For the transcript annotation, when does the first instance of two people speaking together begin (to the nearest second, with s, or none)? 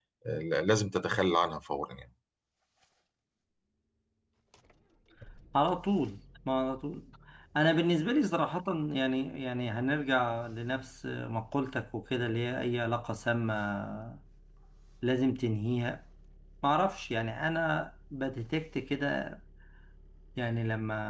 none